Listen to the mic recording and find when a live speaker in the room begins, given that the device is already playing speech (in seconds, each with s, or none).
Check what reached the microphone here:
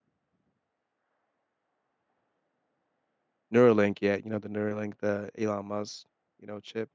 3.5 s